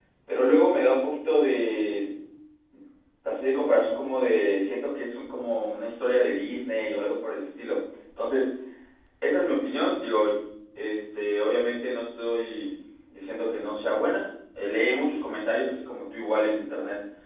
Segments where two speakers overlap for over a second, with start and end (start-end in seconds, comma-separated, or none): none